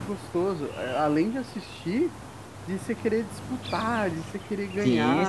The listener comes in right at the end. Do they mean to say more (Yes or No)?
Yes